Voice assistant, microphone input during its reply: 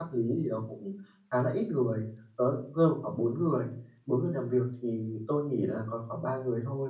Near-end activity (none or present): present